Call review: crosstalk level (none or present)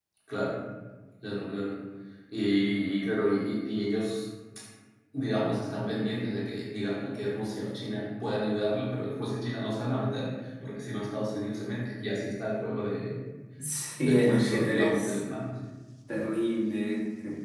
present